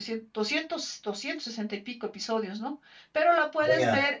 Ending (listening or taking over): listening